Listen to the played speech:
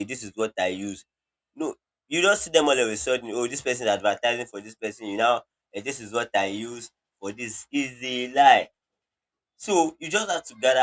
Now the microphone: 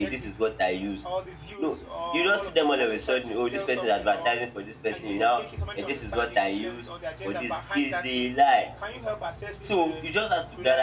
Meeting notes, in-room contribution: present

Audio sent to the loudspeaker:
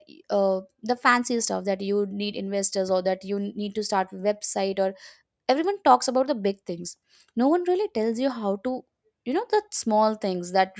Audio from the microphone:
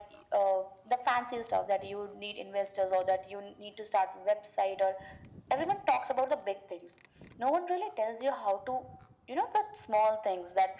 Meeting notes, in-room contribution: none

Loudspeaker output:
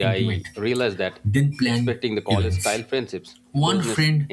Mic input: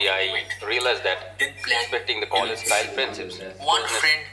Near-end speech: present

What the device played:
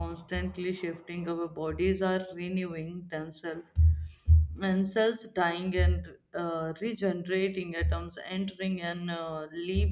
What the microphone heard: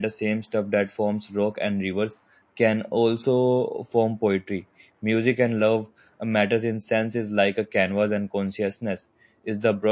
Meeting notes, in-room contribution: present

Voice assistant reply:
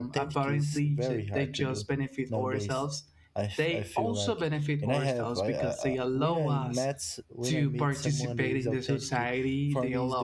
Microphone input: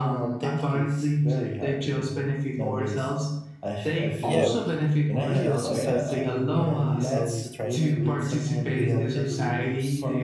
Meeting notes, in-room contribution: present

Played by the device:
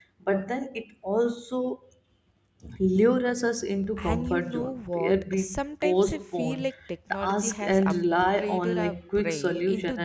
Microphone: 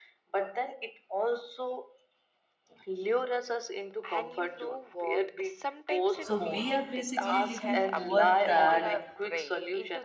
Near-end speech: present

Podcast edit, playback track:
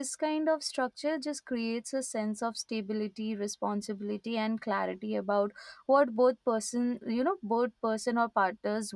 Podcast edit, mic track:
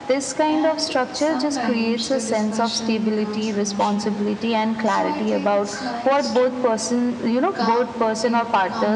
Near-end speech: present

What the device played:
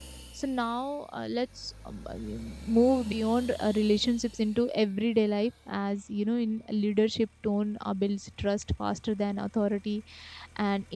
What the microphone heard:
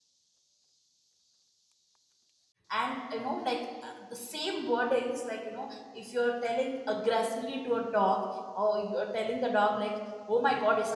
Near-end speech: present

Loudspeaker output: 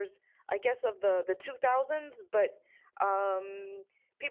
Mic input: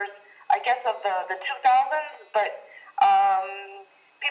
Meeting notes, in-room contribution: none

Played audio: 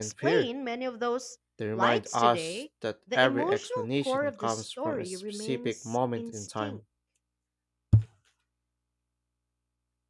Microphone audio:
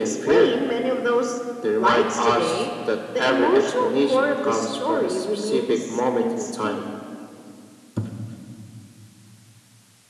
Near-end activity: none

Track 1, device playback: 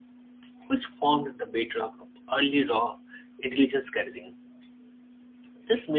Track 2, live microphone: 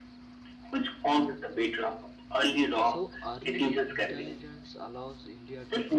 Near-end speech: present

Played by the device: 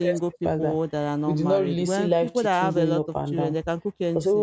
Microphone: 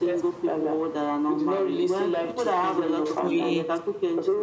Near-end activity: present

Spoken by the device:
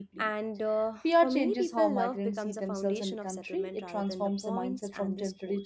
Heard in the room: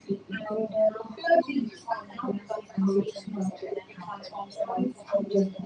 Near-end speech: none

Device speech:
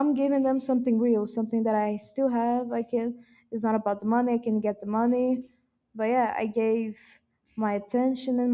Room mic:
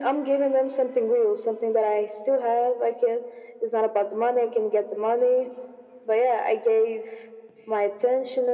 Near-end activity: none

